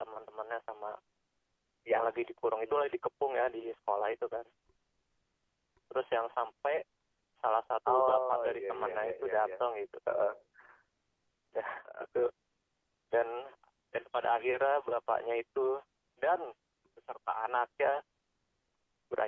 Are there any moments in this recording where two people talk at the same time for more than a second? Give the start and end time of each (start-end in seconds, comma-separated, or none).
7.9-9.5